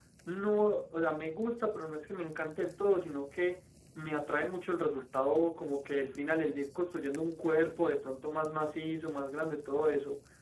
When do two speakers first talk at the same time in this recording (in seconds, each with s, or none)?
none